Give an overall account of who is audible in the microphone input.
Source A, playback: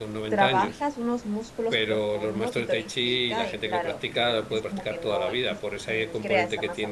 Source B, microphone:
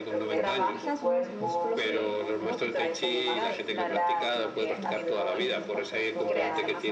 both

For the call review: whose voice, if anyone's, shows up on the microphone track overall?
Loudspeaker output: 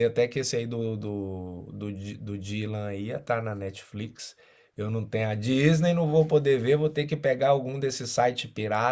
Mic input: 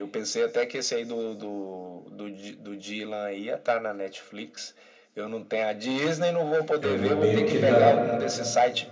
both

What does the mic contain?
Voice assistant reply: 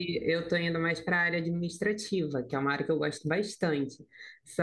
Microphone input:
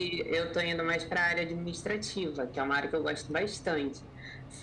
echo only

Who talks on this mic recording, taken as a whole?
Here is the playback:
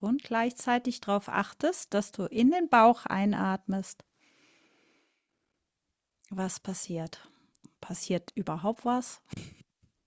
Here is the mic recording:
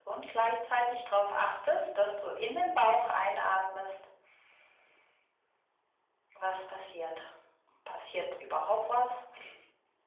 echo only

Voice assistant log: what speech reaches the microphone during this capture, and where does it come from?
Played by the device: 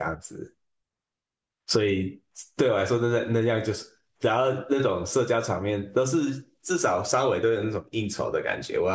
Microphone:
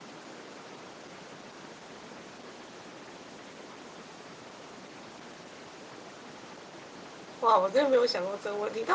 user only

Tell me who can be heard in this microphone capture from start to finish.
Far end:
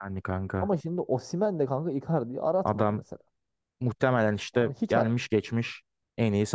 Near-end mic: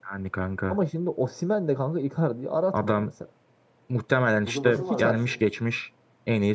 both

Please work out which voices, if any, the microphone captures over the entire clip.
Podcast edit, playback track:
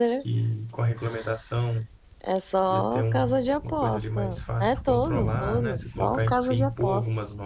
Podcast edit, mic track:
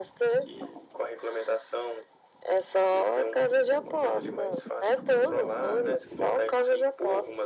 echo only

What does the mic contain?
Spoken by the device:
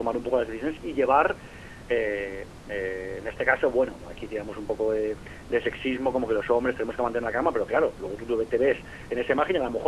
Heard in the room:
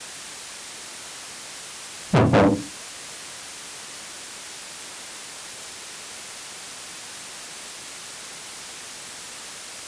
user only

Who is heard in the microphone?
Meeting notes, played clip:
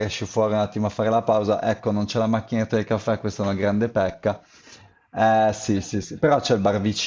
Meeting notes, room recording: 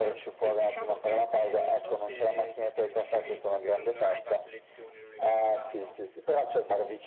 both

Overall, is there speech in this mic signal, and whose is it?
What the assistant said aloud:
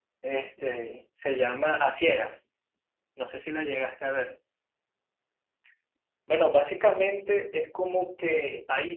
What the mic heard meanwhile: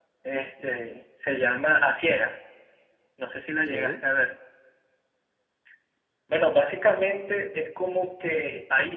both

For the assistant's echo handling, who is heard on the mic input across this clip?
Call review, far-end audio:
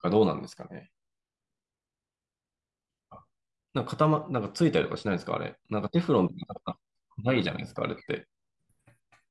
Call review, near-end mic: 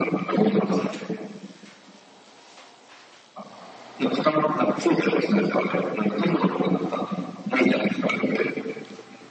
echo only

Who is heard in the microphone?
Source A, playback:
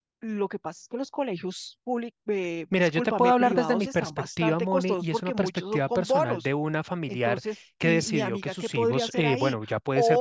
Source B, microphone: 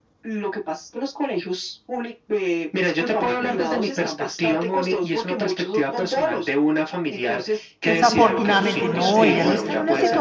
both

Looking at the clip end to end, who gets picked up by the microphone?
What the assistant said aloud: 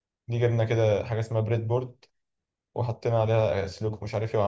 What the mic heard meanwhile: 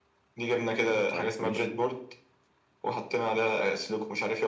both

